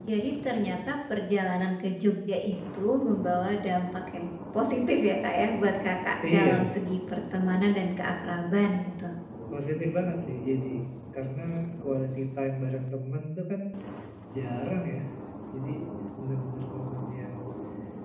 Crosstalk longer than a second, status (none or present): none